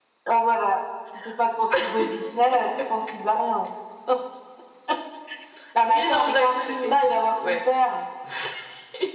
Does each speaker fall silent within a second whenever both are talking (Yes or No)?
No